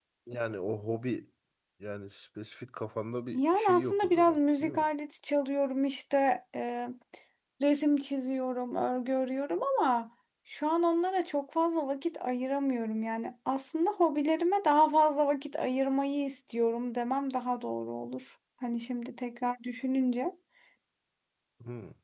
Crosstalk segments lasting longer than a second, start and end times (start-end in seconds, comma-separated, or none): 3.3-4.8